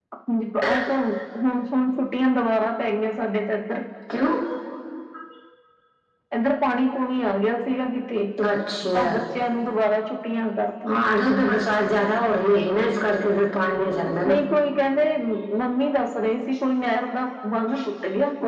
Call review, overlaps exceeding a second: none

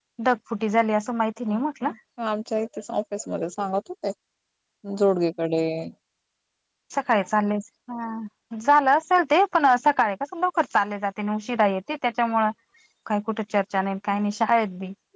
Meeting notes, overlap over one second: none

